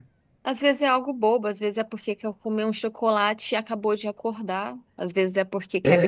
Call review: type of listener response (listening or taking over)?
listening